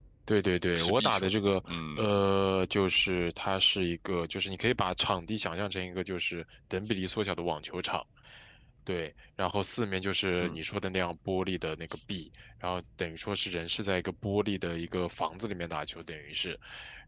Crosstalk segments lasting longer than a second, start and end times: 0.7-2.0

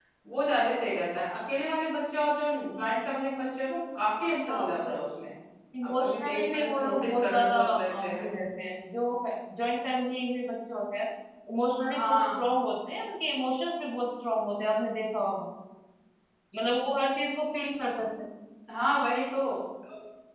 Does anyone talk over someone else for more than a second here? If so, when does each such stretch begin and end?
5.8-8.3

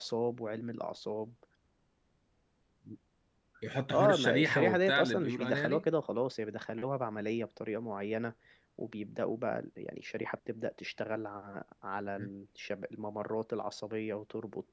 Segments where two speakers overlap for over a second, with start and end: 3.9-5.6

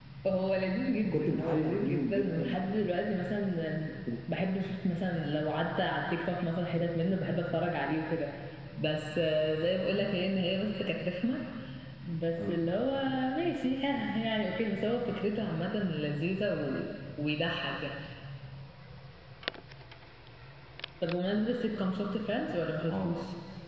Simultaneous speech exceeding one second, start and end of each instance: 1.0-2.5

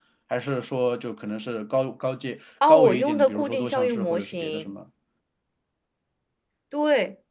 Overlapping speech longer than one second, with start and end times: 2.7-4.7

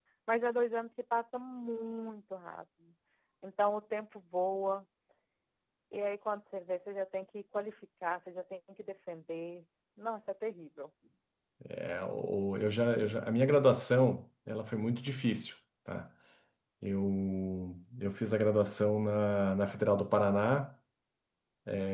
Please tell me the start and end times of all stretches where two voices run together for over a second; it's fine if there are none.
none

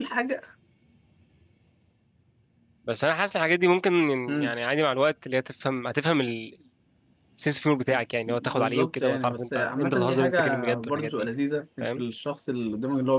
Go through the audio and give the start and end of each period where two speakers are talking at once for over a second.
8.3-11.3

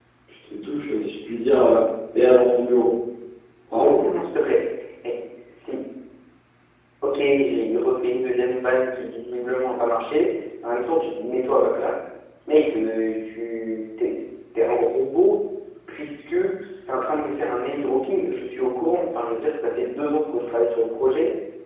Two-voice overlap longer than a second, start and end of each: none

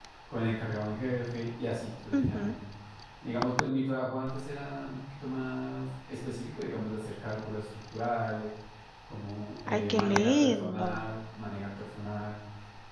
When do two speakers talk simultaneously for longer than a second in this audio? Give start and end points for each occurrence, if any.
9.7-11.0

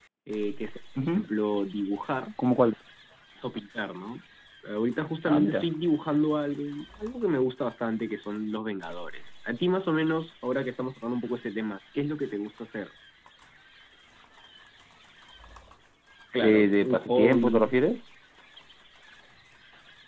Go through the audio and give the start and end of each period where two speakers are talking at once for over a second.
16.3-17.7

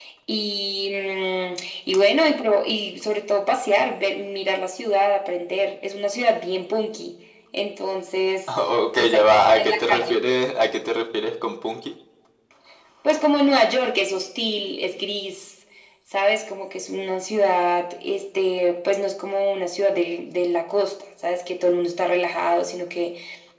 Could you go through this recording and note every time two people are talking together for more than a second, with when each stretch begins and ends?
9.0-10.2

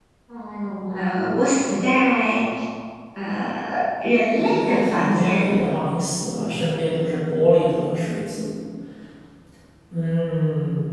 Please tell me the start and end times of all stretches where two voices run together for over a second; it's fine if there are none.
4.4-5.7

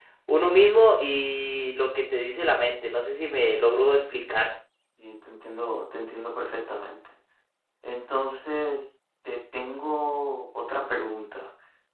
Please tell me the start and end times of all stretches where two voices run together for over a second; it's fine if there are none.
none

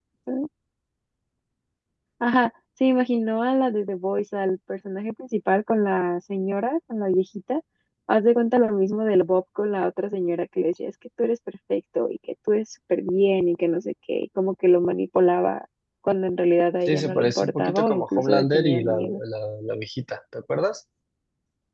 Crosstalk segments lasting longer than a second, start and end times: 16.9-19.2

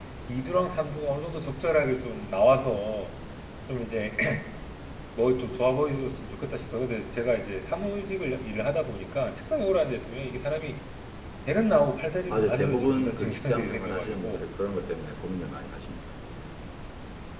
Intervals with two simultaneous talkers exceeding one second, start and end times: 12.3-14.4

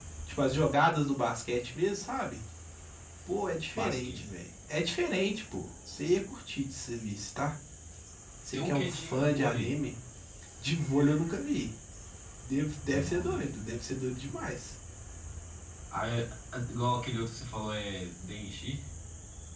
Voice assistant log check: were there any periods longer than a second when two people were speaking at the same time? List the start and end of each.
8.5-9.8

